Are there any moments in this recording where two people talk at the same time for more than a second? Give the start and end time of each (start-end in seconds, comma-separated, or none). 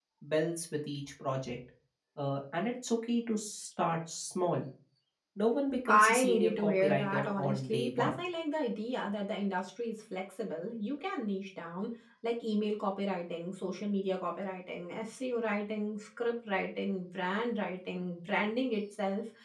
5.9-8.1